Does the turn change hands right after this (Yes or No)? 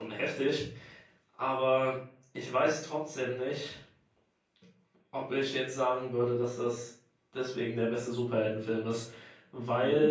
Yes